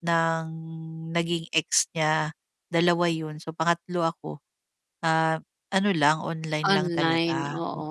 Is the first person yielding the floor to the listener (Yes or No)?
Yes